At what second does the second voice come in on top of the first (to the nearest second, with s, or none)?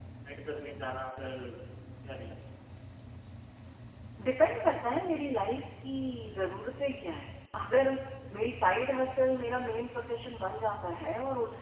none